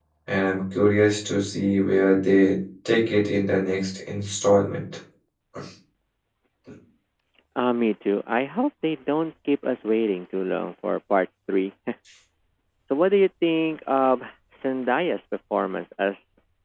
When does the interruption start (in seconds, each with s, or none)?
none